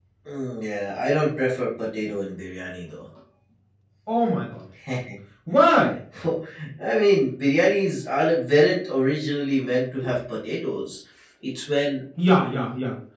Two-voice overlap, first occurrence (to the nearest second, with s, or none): none